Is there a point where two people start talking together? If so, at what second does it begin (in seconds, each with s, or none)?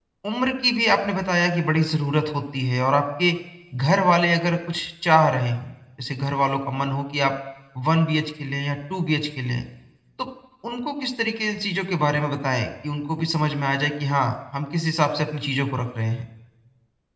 none